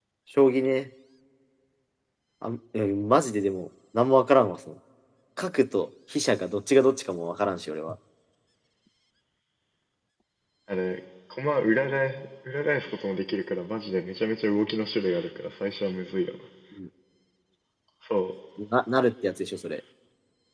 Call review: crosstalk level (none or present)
none